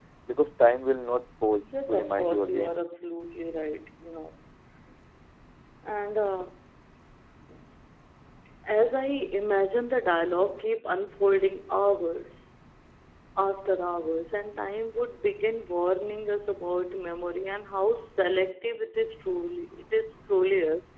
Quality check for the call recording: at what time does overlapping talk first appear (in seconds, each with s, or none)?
1.6 s